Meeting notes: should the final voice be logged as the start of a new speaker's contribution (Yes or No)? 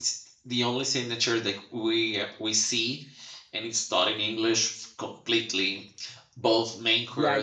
Yes